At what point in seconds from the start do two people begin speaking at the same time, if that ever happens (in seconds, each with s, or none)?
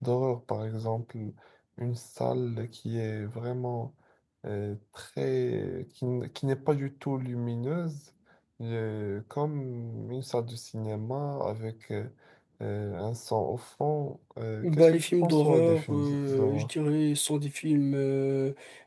14.6 s